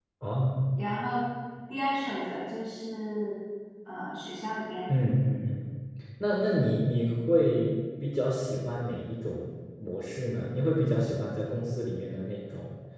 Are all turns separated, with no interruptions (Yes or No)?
Yes